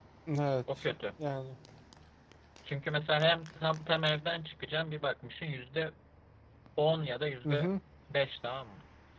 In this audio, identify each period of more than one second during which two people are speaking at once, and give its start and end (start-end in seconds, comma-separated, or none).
none